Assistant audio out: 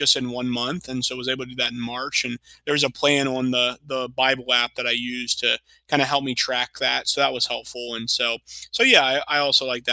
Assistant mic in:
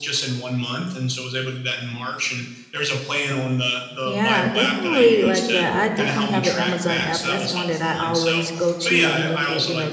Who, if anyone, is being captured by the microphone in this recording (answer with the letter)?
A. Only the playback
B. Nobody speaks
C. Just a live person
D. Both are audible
D